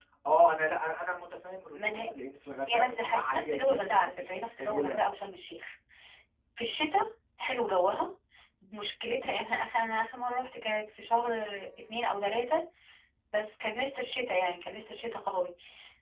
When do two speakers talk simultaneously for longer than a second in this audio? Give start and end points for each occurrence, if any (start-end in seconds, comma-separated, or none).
2.7-5.0